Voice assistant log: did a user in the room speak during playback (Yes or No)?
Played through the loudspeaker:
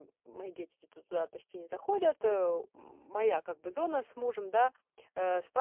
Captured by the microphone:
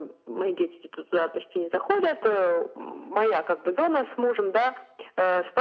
No